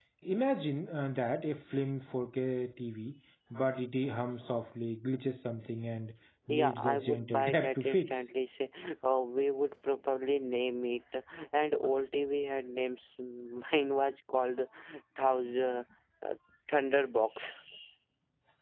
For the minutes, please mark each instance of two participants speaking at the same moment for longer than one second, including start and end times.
6.5-8.2

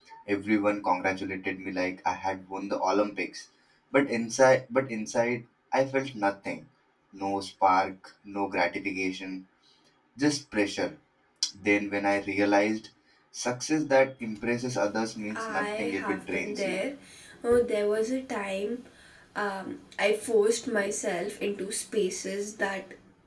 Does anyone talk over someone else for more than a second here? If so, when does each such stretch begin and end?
15.3-16.8

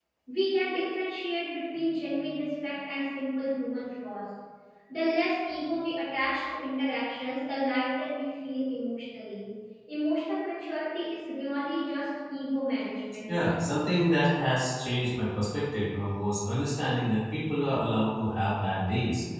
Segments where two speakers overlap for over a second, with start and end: none

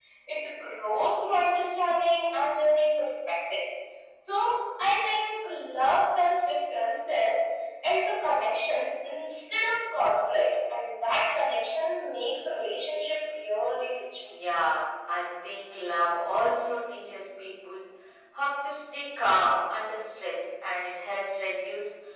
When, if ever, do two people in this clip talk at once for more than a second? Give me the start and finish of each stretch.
none

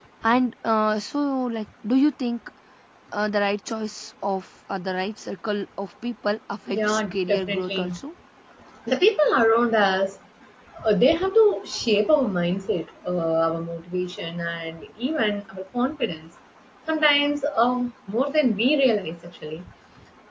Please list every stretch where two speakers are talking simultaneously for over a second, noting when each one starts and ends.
6.7-7.9

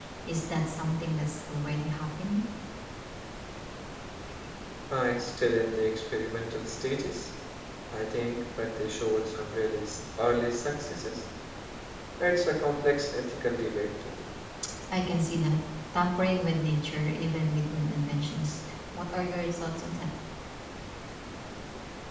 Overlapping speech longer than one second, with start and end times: none

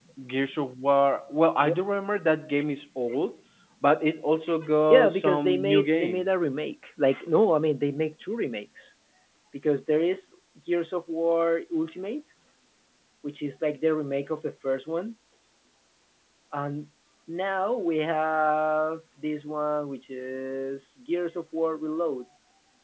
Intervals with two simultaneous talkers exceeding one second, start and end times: 4.9-6.3

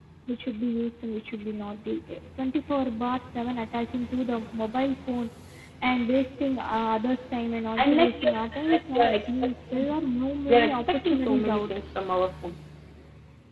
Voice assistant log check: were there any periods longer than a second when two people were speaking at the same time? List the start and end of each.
7.8-9.9, 10.5-11.8

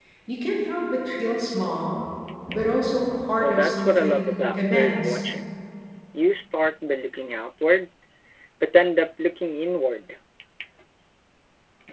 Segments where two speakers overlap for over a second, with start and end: 3.4-5.2

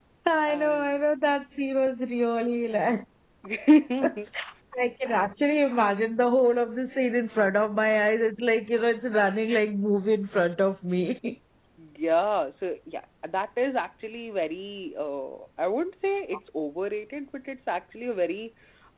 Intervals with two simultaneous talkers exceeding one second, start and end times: none

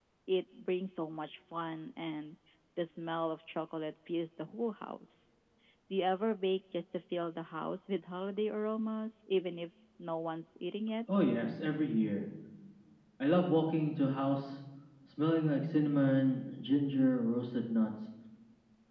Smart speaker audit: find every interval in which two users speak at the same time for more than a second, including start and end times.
none

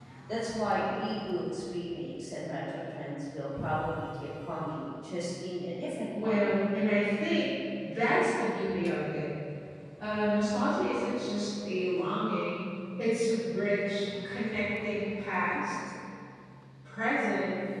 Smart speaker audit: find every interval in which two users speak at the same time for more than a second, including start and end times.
none

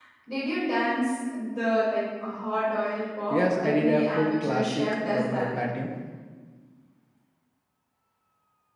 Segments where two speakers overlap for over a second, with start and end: 3.3-5.5

